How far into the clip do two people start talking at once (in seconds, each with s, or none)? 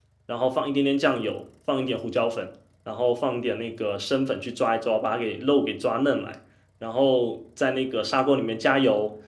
none